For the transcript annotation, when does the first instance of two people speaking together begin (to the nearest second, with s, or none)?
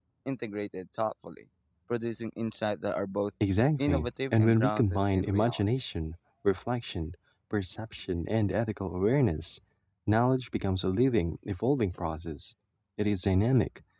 4 s